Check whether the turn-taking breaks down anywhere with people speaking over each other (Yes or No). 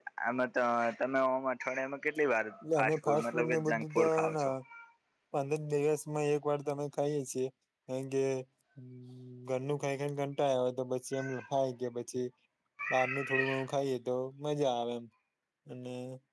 Yes